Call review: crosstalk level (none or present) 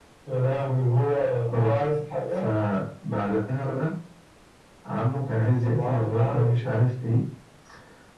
present